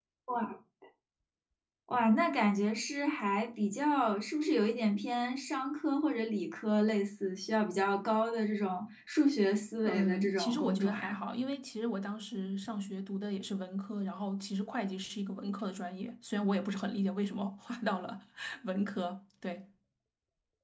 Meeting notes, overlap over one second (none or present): present